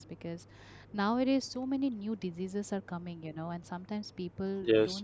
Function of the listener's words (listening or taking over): listening